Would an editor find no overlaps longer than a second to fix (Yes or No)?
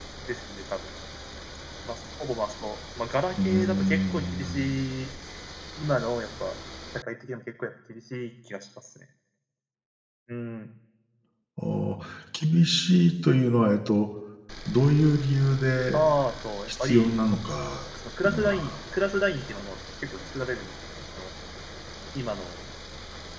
No